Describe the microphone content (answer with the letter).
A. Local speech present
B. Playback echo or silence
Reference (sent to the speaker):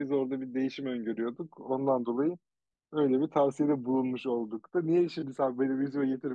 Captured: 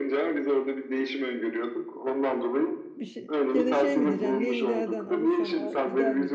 A